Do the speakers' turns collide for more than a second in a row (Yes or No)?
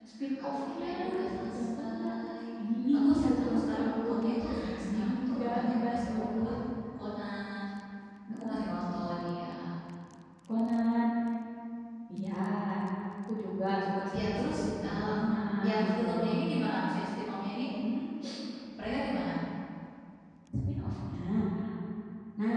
Yes